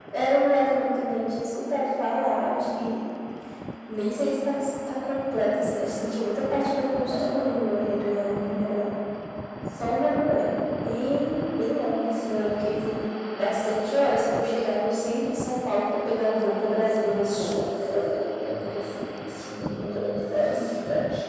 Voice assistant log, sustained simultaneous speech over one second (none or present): none